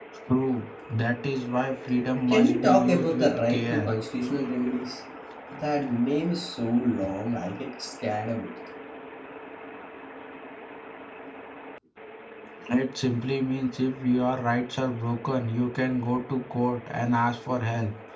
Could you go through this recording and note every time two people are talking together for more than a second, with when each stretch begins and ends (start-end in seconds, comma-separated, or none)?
2.3-3.9